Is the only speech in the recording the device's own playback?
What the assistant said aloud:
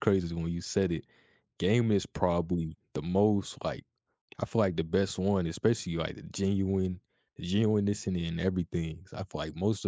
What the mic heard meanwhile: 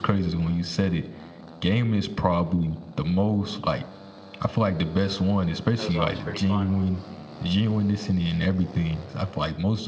No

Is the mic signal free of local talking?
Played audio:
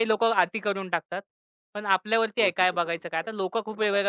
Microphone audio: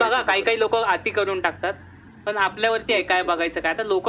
Yes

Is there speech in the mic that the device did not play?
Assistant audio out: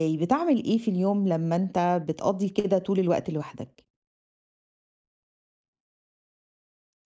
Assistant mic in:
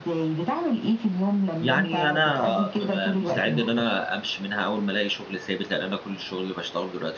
Yes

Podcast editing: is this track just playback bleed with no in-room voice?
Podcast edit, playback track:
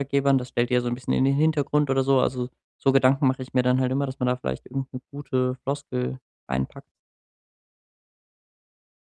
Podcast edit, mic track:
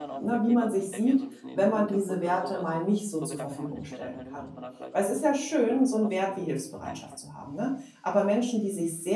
No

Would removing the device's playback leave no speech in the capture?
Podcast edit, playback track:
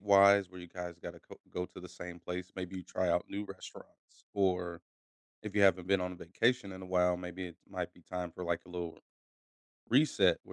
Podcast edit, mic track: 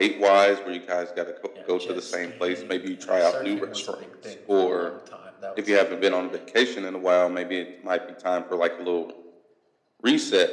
No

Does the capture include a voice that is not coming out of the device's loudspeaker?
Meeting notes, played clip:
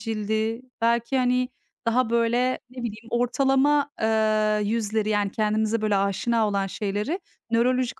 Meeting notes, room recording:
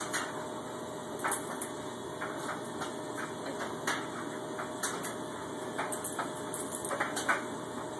No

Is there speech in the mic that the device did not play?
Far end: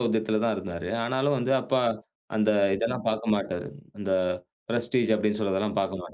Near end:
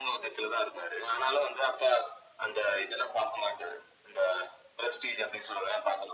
No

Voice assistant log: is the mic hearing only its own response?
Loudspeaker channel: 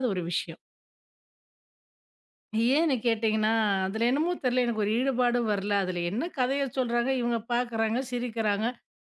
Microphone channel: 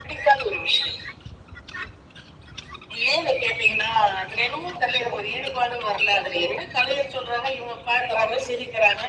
Yes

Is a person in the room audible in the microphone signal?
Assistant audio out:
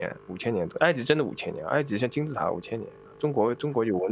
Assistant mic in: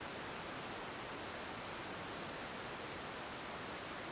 No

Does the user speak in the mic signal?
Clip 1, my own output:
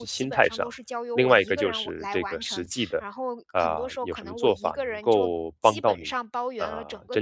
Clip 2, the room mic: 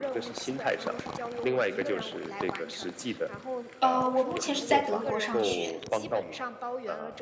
Yes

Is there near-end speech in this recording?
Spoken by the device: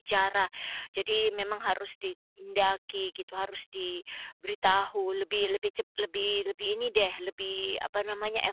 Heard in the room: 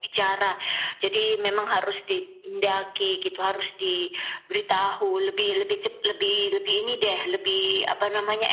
No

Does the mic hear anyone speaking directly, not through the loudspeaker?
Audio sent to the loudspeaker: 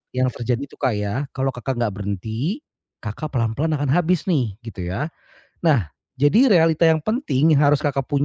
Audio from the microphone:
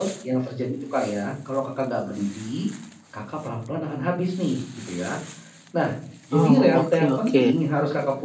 Yes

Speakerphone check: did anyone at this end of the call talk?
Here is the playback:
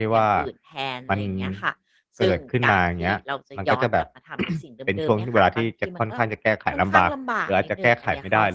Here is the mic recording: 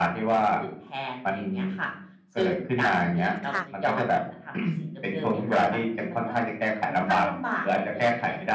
Yes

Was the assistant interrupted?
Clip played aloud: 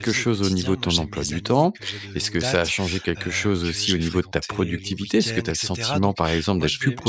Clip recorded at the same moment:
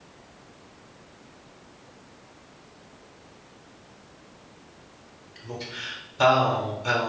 Yes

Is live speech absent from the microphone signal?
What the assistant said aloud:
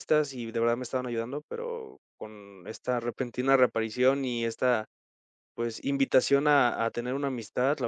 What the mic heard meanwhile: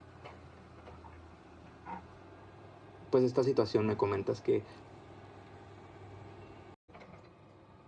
No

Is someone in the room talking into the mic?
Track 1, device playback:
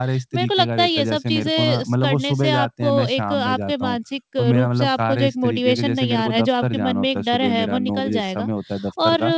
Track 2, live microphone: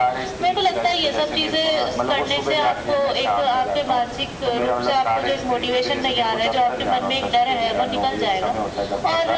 No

